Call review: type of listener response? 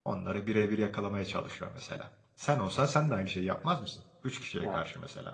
taking over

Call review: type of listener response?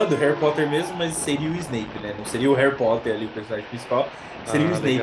listening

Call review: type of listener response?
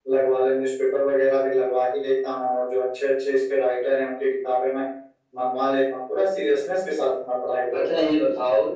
taking over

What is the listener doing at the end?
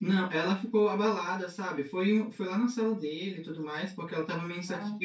listening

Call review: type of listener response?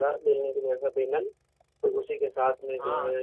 listening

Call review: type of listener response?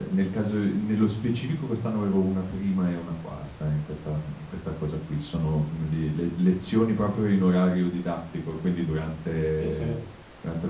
listening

